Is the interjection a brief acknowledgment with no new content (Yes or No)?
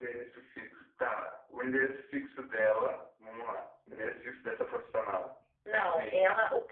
No